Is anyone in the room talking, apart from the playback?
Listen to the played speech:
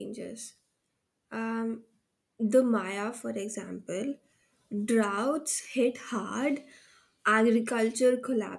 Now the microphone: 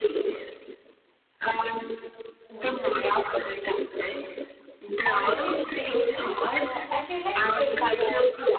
Yes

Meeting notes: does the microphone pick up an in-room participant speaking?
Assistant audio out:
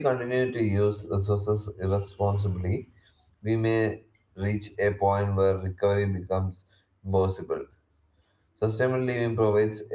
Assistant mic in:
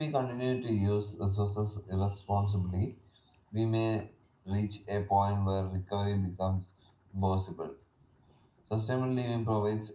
No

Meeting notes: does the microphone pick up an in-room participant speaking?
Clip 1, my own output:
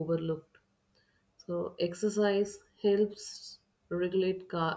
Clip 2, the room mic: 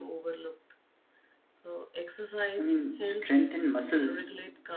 Yes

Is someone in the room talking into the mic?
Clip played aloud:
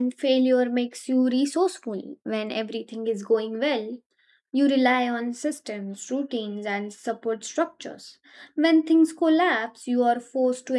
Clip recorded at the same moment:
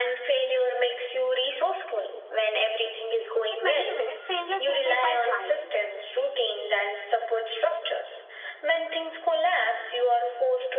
Yes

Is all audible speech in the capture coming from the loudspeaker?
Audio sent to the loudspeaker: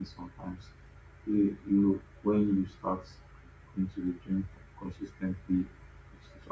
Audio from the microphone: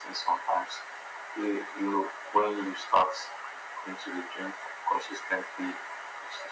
Yes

